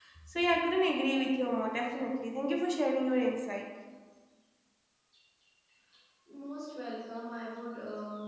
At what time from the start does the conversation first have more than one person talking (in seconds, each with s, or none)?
none